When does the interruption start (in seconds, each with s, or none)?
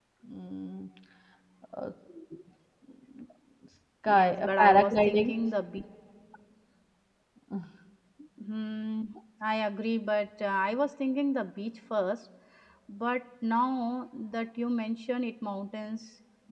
4.1 s